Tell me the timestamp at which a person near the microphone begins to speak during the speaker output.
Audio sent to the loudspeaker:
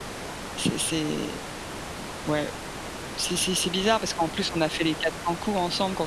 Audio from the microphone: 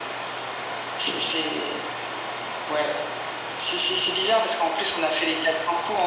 none

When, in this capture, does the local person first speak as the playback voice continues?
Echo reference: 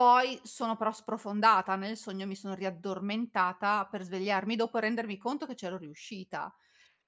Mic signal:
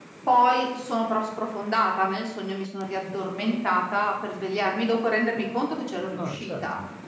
6.2 s

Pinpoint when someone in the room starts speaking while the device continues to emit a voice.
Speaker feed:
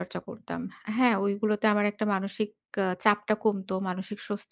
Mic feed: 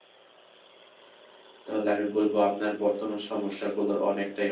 1.7 s

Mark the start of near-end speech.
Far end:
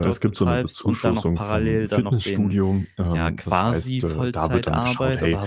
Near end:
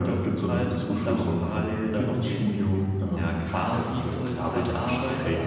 none

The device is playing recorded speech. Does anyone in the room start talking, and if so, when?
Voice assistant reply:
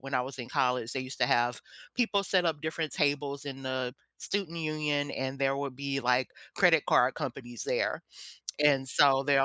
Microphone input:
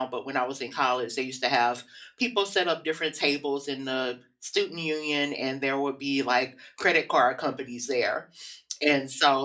none

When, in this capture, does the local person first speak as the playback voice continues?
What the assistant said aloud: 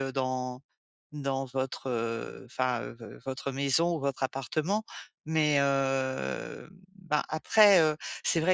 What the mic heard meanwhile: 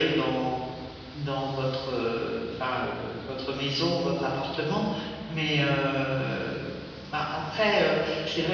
none

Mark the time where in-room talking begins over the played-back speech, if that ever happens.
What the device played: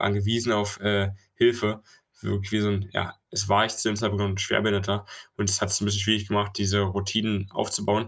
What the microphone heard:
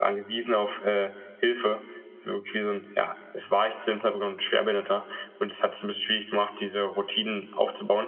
none

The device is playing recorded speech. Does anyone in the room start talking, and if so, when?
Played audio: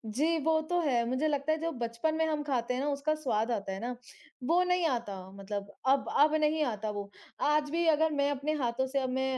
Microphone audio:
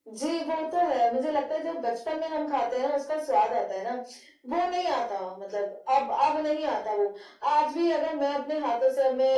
none

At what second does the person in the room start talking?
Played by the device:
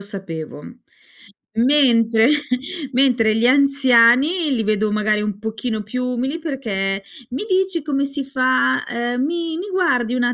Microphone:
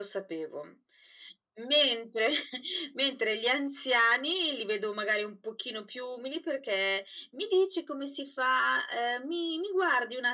none

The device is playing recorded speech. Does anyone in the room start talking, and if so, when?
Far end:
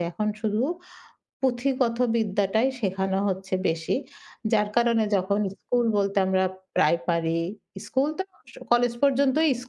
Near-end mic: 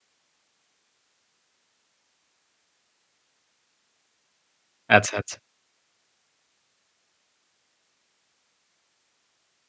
5.0 s

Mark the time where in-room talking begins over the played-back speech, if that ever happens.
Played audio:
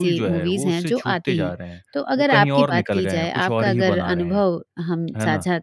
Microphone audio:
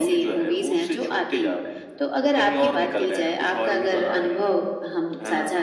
none

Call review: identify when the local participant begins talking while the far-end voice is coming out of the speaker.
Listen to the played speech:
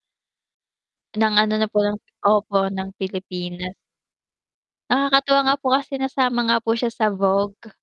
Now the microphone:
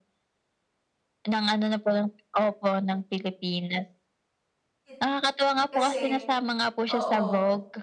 4.9 s

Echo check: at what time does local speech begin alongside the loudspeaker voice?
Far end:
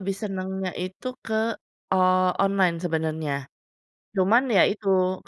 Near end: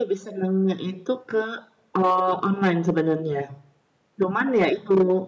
none

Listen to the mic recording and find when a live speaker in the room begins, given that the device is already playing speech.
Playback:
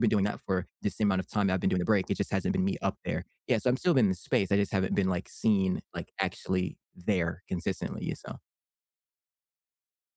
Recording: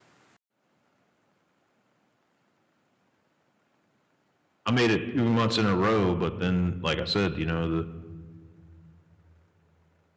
4.7 s

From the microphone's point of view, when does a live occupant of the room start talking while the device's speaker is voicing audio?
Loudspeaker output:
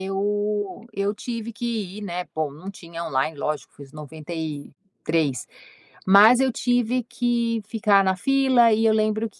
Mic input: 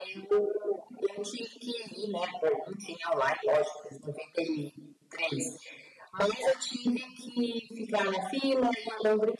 none

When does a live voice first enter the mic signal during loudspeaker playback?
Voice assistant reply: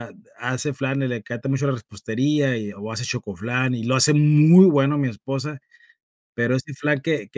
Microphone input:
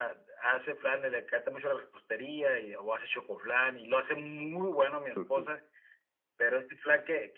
5.1 s

